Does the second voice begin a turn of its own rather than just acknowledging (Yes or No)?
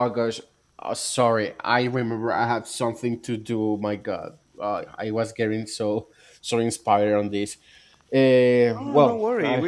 Yes